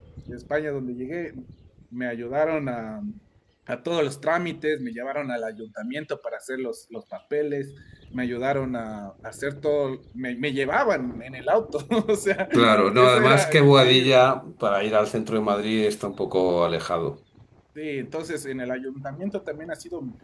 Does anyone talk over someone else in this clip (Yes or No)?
Yes